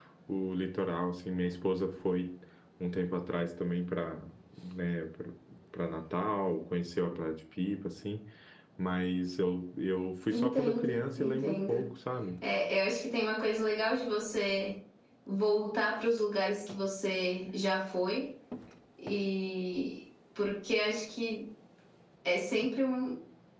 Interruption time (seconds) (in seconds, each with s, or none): 10.3 s